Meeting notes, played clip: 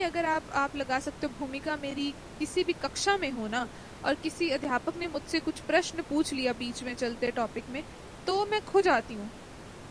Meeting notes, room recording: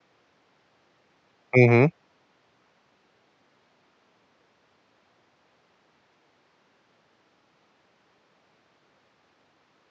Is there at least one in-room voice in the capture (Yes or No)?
Yes